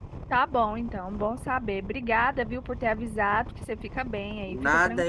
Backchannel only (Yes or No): No